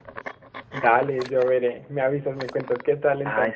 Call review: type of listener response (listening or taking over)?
taking over